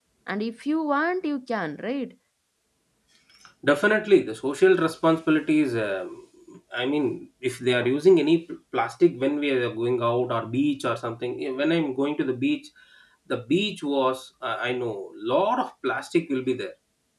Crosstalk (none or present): none